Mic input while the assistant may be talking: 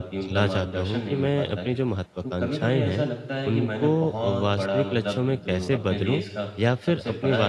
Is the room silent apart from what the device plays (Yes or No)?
No